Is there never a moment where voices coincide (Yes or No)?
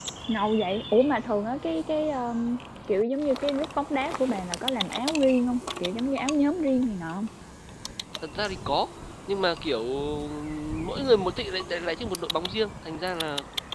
Yes